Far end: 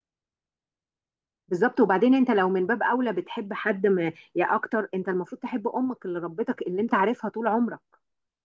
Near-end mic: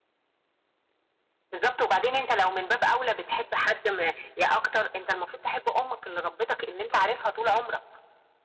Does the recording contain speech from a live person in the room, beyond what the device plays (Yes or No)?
No